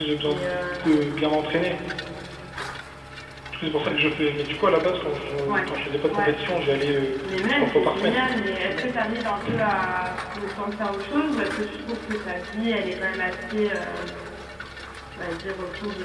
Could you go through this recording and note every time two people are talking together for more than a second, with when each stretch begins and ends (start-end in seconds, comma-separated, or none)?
7.5-8.9